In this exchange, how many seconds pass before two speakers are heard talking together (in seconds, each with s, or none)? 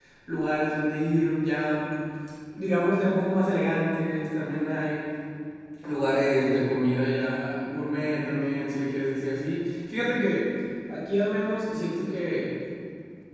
none